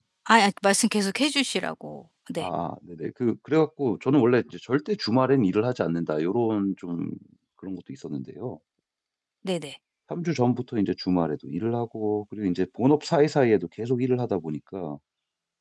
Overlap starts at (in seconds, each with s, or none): none